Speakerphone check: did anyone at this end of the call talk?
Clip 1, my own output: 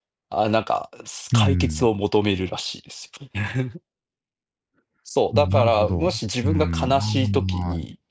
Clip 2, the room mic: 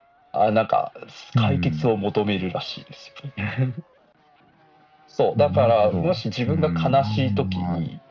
No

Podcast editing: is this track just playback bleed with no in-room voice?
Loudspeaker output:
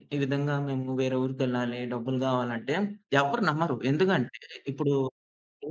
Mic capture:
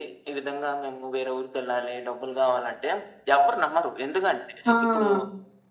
No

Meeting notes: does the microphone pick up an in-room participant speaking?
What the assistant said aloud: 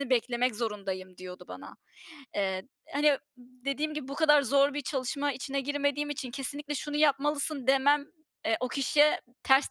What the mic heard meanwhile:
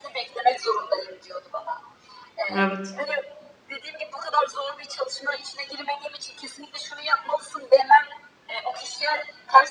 Yes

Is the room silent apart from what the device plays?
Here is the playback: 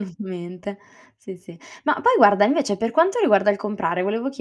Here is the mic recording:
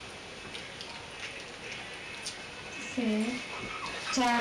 No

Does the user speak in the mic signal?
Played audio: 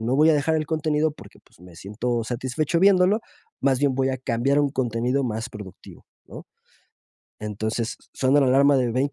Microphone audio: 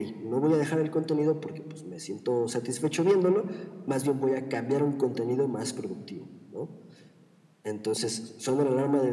No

